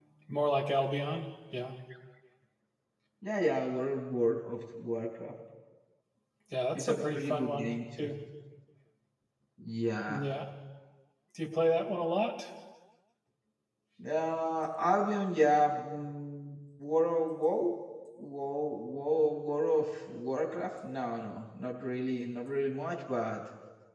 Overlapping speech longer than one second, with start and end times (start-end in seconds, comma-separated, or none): 6.8-8.1